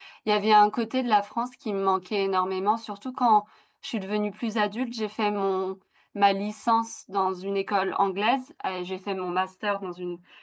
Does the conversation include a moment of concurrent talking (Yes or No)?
No